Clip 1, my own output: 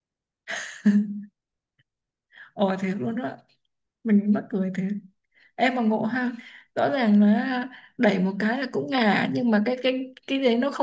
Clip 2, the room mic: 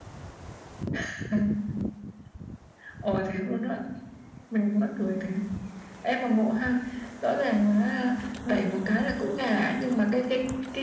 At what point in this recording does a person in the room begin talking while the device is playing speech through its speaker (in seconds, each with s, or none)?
none